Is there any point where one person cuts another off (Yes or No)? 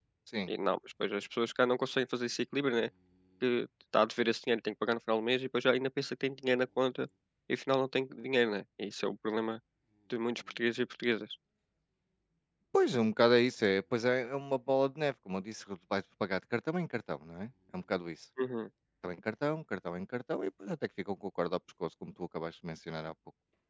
No